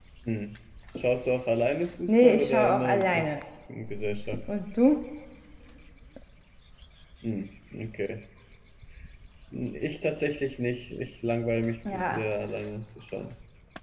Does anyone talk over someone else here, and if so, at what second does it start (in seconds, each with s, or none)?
2.1 s